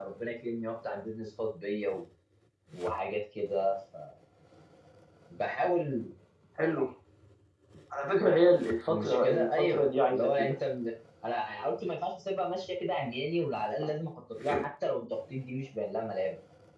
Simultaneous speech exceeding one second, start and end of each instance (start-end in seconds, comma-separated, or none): 8.9-10.5